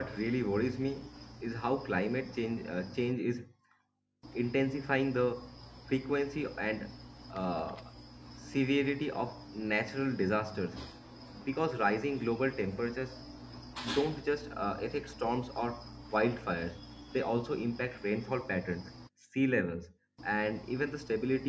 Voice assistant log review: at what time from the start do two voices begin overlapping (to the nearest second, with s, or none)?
none